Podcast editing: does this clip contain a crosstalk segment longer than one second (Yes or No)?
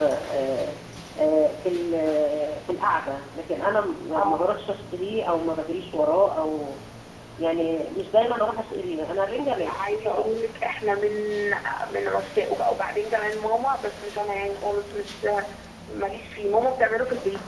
No